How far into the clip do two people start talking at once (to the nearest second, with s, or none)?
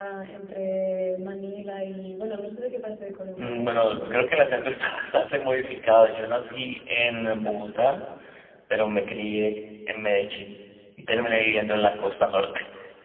3 s